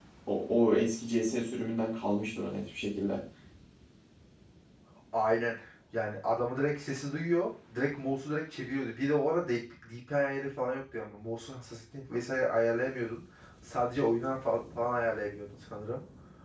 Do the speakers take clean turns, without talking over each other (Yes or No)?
Yes